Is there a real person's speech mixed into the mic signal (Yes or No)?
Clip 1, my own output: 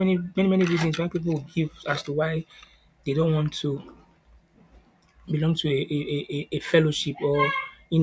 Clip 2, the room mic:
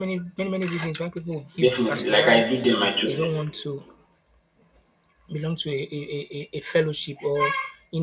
Yes